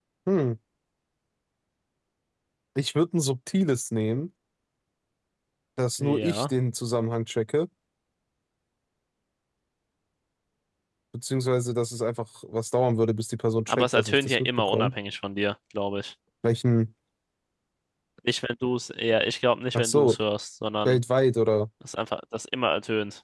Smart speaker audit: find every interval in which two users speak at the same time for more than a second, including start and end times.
13.7-14.9

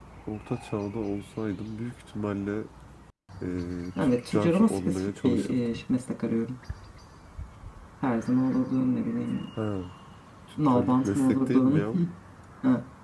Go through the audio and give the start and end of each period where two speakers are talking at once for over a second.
4.0-5.8, 10.6-11.8

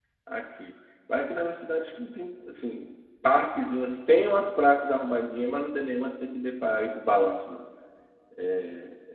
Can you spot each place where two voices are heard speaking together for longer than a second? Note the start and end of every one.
none

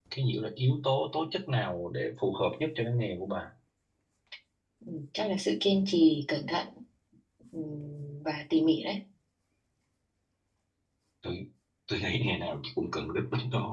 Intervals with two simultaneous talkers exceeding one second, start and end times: none

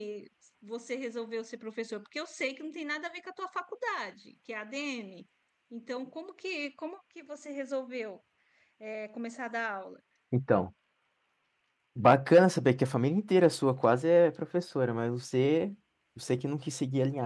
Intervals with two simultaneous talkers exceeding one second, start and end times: none

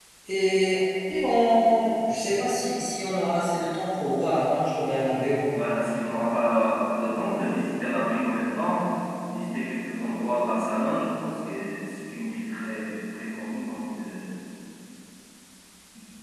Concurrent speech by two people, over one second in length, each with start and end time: none

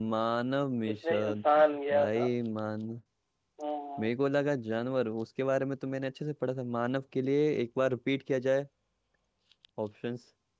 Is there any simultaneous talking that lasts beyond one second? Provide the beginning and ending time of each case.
none

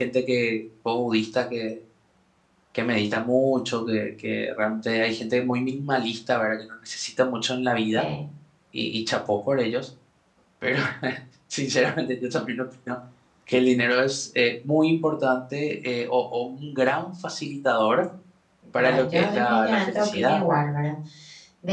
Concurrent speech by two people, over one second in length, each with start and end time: 18.8-20.6

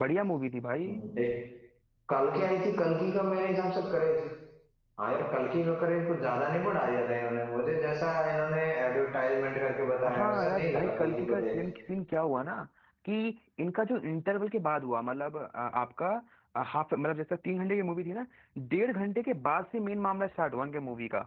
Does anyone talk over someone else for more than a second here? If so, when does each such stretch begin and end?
10.1-11.4

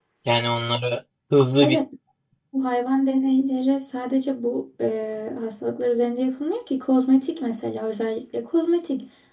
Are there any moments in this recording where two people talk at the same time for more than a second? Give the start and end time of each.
none

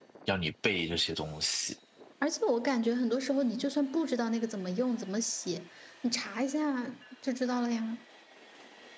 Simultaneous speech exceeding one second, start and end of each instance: none

